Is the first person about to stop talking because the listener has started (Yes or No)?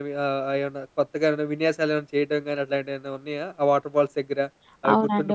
Yes